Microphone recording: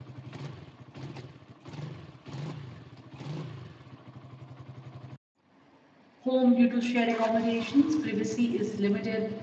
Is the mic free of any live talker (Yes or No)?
No